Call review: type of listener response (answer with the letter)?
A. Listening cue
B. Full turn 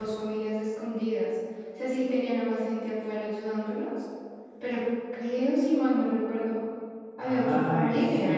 B